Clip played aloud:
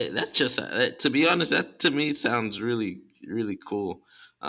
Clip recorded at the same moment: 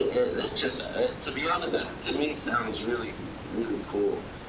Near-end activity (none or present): none